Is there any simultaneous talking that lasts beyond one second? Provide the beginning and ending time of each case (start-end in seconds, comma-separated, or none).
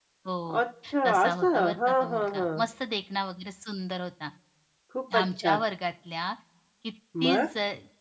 1.1-2.5